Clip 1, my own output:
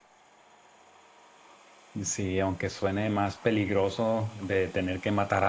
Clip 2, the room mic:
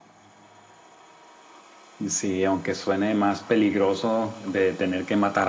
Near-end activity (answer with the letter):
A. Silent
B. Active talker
A